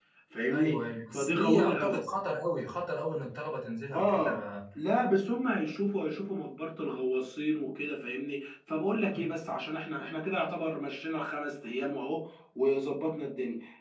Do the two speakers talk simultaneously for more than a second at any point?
Yes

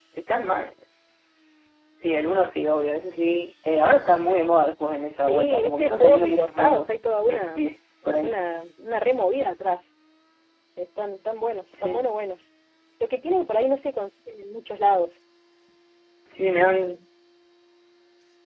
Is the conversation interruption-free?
No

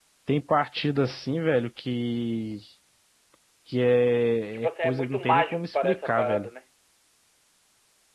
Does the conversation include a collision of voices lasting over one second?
Yes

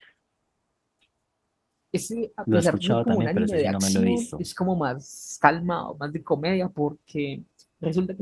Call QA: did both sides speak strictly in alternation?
No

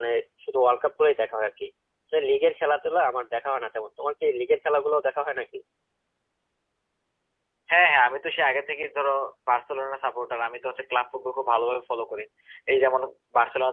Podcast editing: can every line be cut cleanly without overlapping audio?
Yes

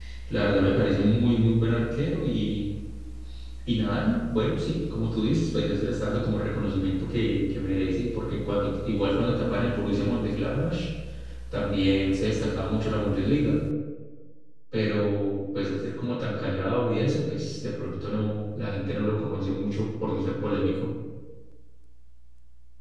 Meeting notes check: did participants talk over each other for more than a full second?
No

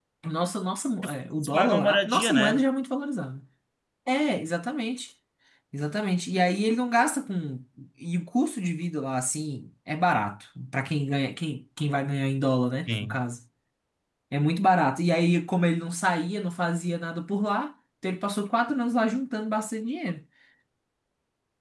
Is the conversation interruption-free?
No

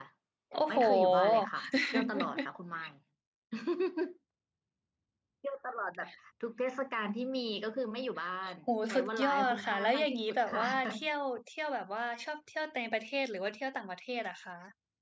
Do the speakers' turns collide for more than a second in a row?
Yes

